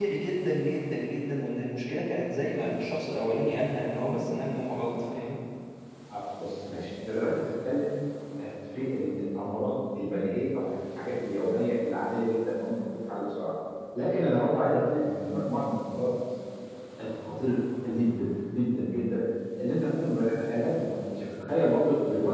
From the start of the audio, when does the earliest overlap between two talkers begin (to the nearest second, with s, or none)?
none